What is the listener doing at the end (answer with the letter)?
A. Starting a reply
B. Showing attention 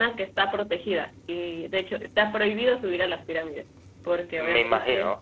B